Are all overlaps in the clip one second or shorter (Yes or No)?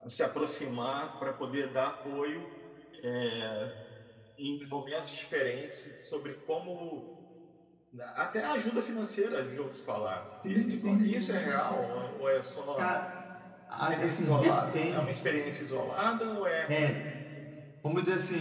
No